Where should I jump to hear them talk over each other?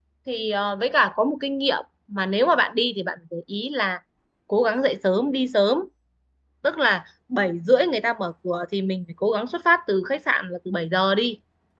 none

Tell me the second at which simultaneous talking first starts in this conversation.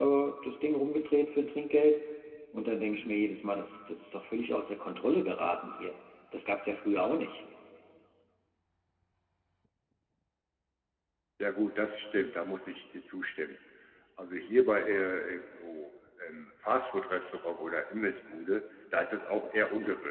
none

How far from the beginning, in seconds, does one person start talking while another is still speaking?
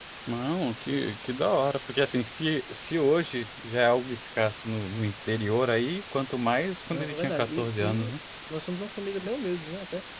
6.9 s

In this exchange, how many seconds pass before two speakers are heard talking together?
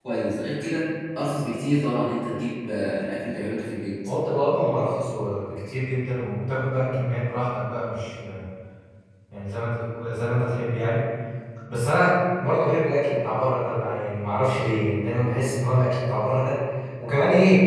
none

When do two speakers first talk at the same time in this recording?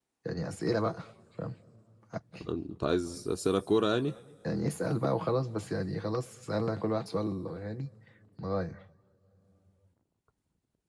none

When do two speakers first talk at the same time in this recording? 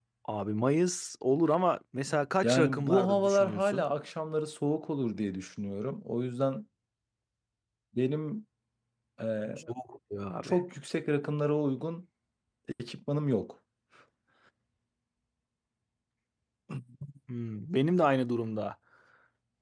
2.4 s

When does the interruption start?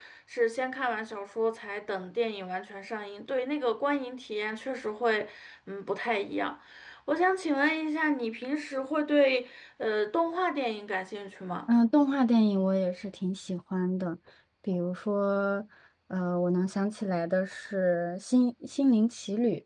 none

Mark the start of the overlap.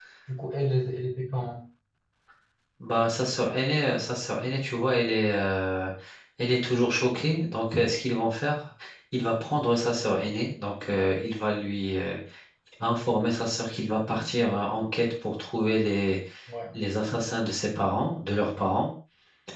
none

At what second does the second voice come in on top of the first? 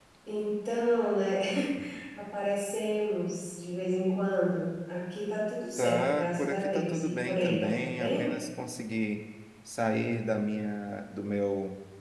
5.8 s

